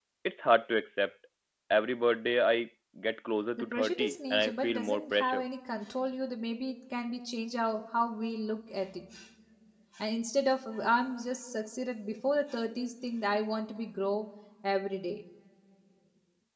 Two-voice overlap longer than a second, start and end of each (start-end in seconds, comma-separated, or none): 3.6-5.4